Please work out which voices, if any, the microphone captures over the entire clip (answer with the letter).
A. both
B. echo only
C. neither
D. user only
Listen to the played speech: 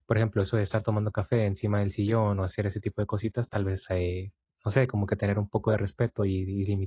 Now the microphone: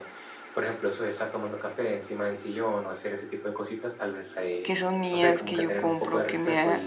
A